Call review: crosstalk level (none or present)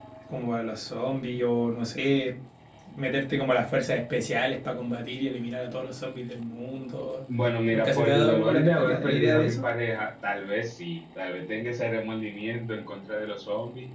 present